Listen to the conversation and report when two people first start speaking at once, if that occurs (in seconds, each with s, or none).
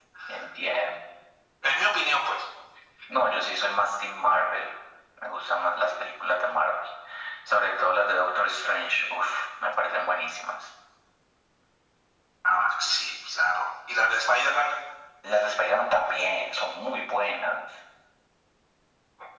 none